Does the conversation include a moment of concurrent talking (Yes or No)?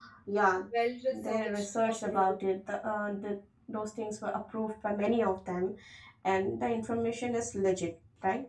Yes